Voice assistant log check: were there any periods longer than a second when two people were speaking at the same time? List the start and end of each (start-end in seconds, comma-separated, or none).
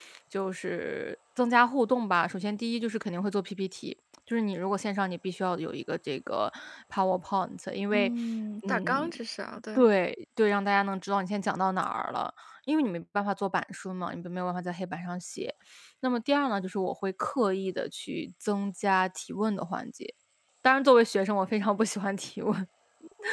none